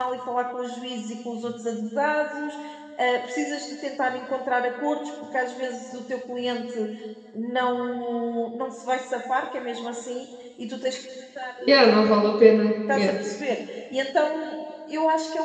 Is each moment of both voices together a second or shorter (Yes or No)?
Yes